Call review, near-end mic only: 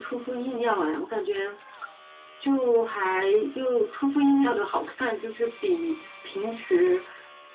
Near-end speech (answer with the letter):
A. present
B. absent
B